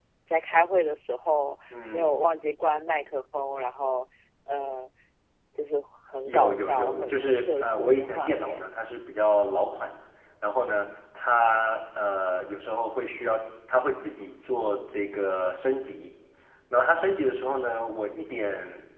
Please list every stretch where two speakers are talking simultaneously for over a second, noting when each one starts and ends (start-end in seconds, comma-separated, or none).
6.3-8.7